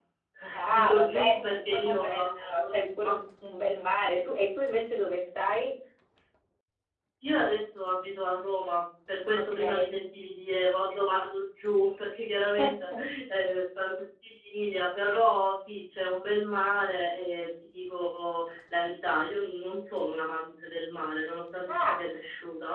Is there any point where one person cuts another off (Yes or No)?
Yes